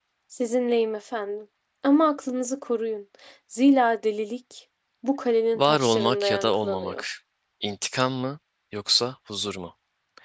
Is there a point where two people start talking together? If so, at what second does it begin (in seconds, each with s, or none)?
5.5 s